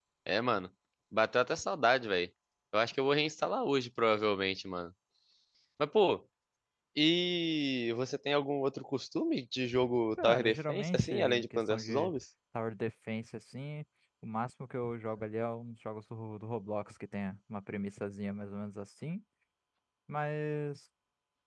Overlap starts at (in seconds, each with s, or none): 10.2 s